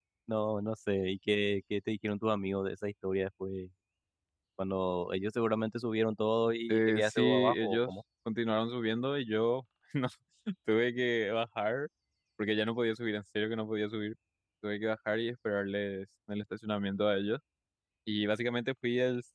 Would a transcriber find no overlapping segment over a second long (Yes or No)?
No